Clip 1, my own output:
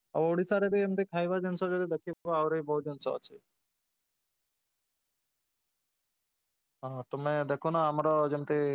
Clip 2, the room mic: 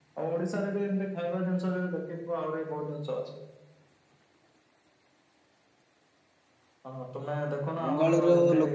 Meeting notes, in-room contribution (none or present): present